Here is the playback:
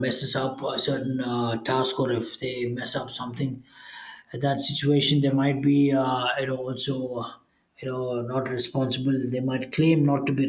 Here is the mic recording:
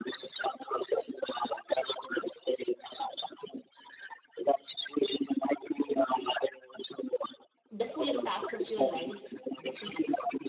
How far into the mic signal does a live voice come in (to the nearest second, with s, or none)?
8 s